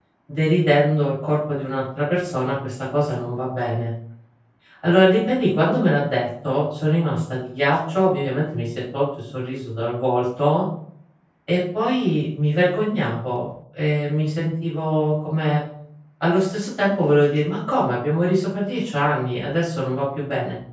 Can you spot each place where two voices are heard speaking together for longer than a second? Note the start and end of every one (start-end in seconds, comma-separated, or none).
none